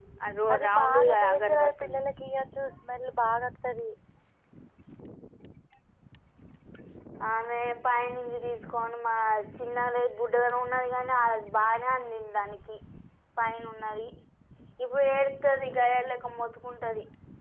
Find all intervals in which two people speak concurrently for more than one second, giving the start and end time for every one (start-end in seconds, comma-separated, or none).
0.5-2.0